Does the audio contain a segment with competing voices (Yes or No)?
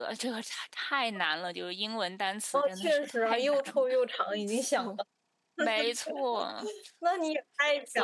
Yes